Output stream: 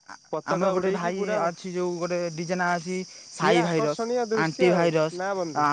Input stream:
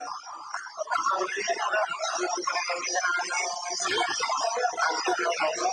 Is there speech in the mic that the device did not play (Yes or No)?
No